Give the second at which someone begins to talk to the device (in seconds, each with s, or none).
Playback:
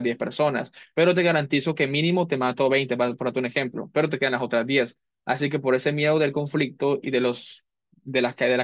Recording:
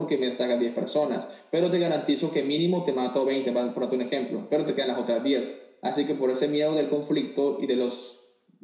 none